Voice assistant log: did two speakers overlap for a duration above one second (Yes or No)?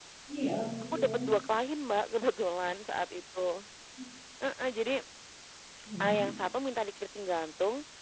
No